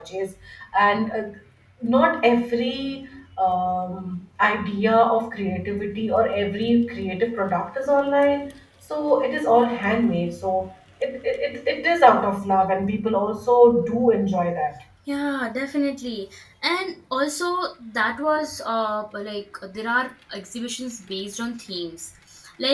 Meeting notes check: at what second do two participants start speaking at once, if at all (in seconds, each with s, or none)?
none